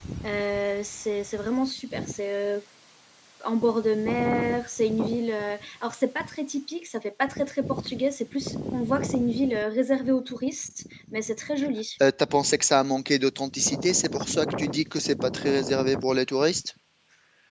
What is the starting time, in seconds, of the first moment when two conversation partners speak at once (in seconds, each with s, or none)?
none